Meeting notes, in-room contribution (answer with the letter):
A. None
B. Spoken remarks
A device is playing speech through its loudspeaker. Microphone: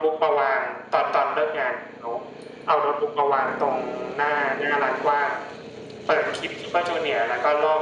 A